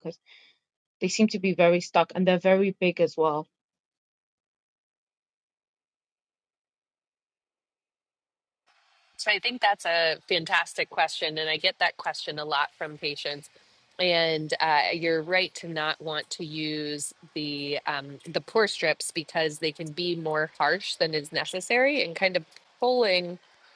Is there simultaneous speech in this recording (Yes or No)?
No